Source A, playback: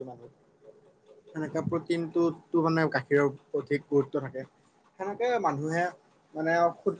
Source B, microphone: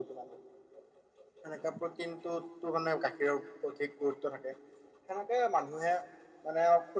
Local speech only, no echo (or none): none